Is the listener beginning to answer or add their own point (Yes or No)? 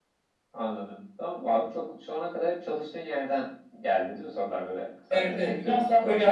Yes